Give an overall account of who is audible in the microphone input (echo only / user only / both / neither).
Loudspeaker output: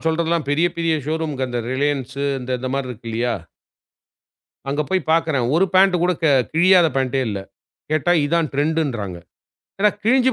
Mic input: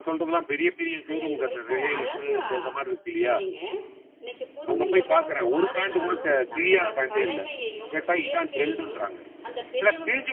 both